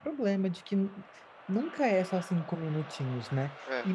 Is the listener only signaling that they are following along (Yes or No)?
Yes